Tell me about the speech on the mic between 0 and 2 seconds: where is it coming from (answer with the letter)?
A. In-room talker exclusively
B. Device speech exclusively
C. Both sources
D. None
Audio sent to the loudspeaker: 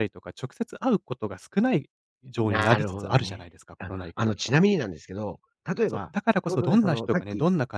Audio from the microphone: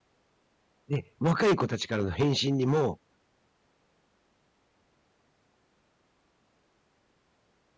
A